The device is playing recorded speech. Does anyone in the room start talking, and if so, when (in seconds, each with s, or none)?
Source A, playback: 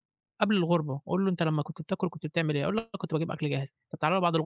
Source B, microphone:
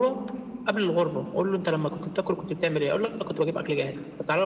none